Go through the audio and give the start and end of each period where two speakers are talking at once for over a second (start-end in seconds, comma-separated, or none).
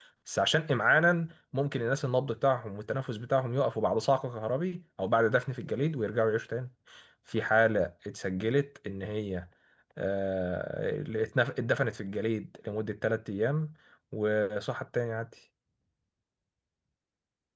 none